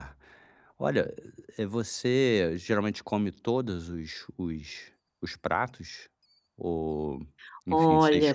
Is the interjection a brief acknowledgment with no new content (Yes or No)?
No